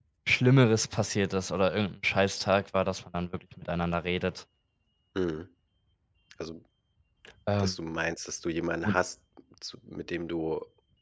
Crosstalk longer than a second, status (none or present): none